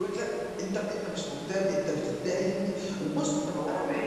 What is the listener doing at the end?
listening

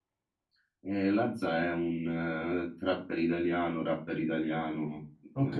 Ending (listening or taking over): taking over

